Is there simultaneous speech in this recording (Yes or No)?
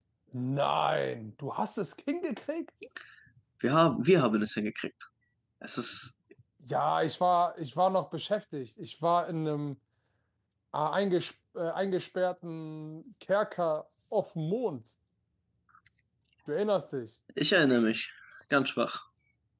No